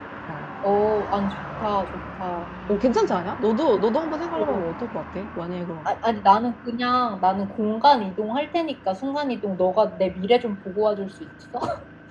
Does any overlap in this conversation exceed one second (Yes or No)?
No